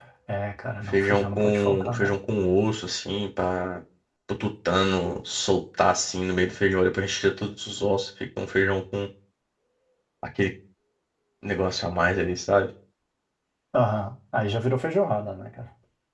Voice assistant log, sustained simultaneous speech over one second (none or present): present